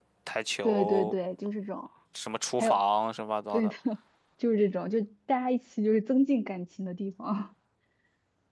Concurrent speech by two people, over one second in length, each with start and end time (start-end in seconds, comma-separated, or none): none